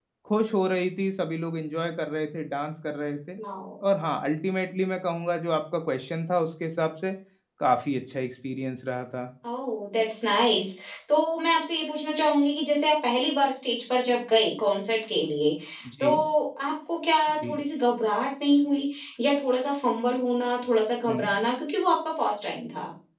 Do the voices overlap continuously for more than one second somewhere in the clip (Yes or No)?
No